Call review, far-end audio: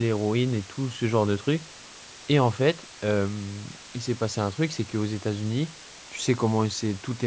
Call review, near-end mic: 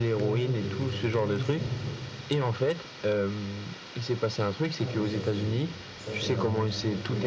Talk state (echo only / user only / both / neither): both